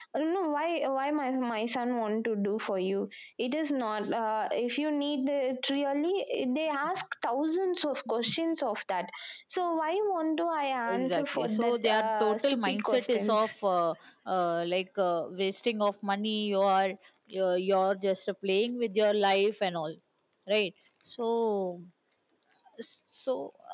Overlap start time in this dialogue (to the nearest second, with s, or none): 11 s